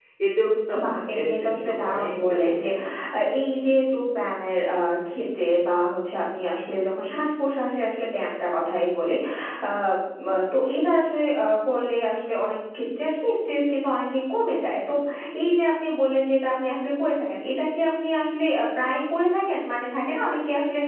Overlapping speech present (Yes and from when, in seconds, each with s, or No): Yes, from 0.8 s